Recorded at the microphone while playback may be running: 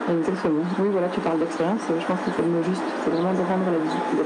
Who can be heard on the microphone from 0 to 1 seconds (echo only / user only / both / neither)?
echo only